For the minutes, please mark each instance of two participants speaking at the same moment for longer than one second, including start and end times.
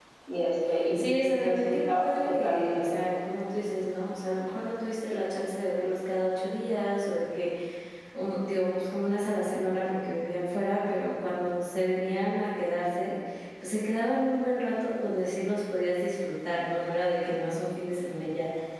0.9-3.1

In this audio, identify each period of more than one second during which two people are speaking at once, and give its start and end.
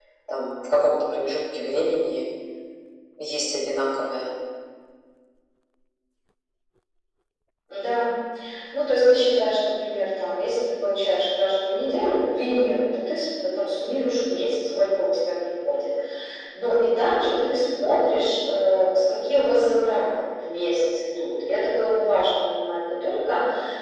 none

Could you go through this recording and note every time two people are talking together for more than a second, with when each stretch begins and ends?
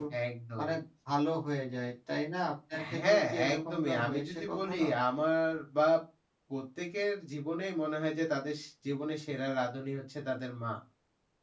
3.0-4.9

